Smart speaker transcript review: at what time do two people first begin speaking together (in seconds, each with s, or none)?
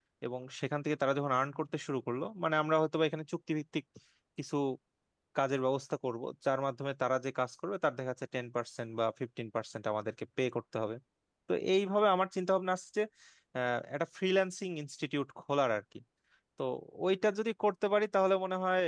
none